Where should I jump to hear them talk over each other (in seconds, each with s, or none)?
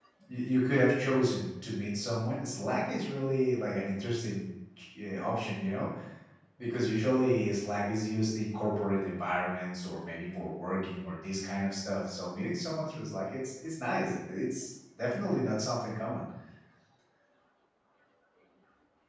none